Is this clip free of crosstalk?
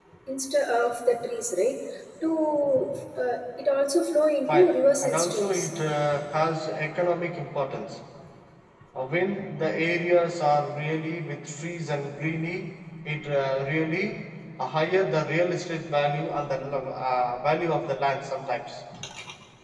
No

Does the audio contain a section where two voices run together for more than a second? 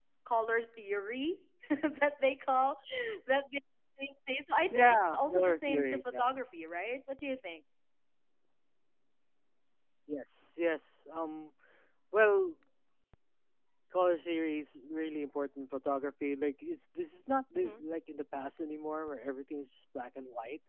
Yes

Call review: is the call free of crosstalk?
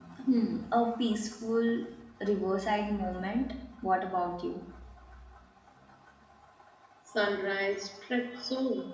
Yes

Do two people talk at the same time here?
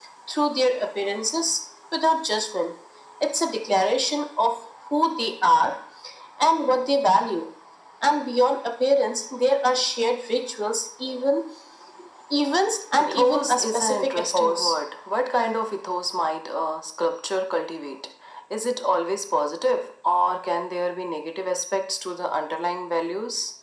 Yes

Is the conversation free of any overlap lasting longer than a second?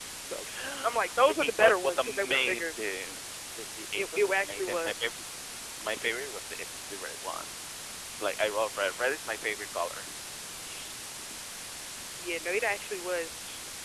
No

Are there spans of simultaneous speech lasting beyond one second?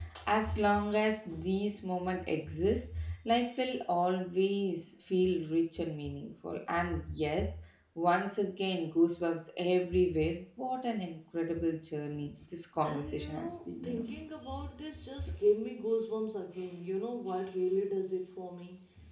Yes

